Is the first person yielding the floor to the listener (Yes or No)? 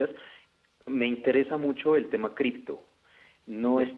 No